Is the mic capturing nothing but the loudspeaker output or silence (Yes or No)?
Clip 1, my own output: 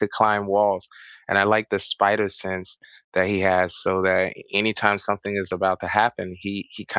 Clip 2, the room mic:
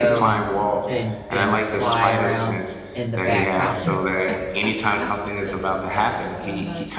No